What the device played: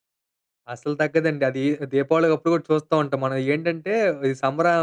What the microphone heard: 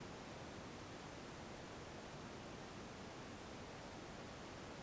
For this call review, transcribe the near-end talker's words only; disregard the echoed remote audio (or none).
none